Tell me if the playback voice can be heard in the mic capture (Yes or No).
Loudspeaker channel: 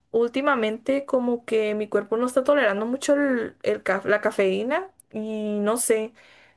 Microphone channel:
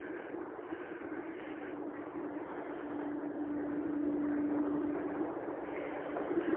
No